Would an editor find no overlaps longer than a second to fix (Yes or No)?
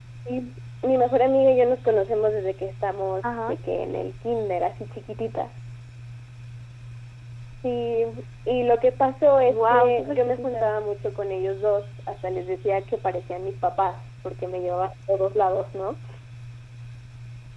No